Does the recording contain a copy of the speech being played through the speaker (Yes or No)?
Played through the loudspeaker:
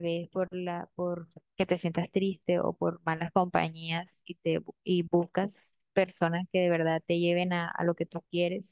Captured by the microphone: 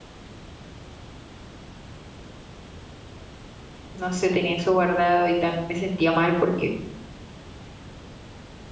No